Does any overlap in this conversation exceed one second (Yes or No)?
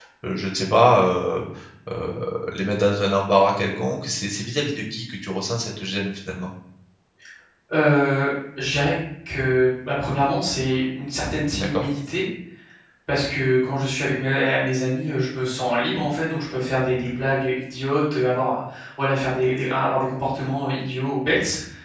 No